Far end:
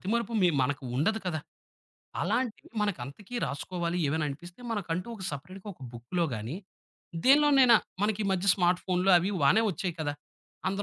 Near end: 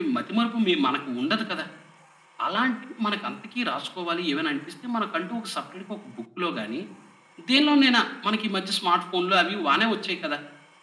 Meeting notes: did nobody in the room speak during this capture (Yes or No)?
Yes